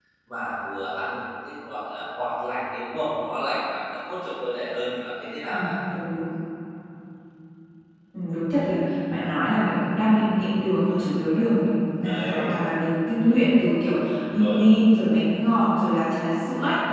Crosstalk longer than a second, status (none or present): none